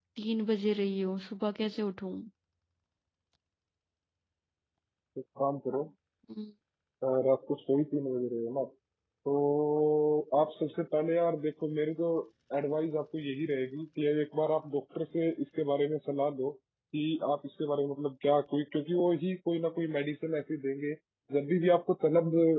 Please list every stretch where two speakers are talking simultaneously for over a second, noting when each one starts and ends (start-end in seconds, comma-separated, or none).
none